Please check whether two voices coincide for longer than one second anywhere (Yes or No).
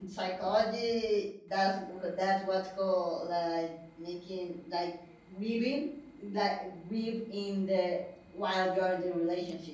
No